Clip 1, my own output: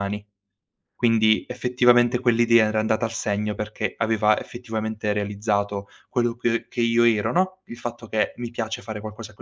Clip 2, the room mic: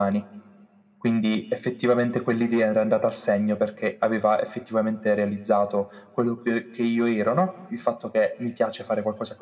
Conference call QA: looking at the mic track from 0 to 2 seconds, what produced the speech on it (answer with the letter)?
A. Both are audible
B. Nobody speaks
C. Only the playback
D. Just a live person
C